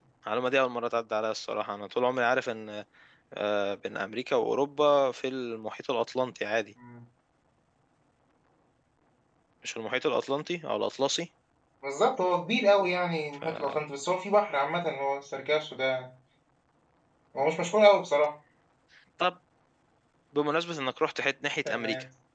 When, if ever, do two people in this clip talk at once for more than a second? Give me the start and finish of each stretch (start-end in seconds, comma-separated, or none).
none